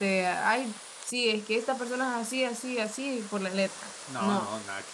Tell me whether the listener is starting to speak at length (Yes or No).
Yes